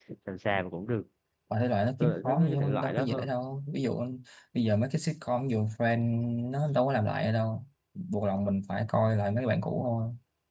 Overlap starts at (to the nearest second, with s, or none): 2 s